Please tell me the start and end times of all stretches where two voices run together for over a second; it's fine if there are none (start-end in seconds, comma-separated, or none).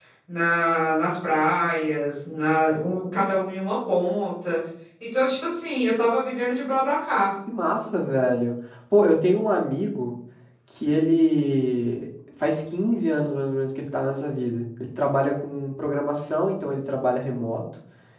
none